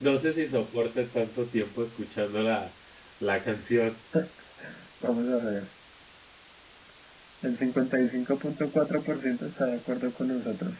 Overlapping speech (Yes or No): No